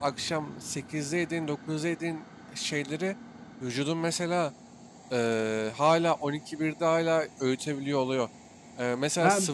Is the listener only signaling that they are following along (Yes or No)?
Yes